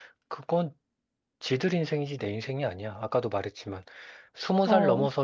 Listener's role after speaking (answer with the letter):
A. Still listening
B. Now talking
A